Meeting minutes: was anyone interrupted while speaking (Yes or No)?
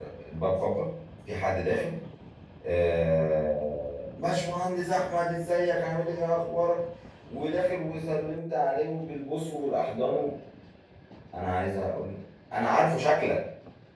No